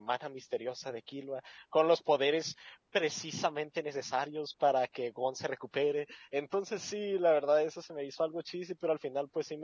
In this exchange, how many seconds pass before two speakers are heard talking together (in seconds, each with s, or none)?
none